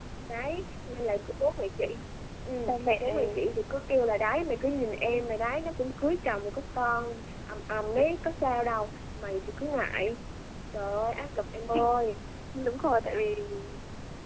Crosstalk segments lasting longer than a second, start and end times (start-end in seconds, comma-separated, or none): none